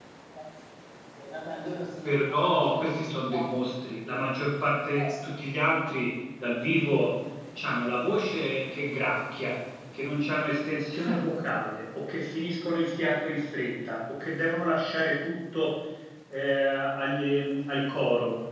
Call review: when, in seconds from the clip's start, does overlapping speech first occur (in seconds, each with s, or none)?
2.0 s